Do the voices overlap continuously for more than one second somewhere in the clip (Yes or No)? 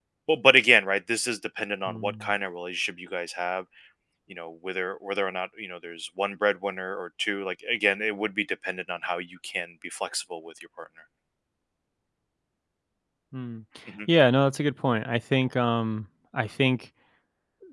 No